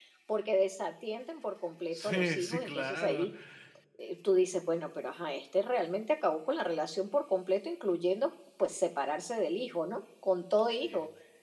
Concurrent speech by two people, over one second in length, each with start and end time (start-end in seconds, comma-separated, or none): 1.9-3.3